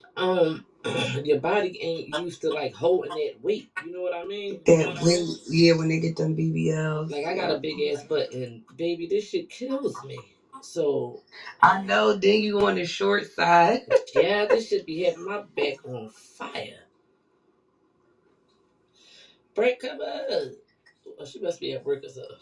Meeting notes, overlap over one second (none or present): none